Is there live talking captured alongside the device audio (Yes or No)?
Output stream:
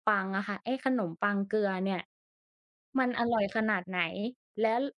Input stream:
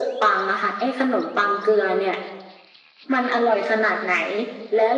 No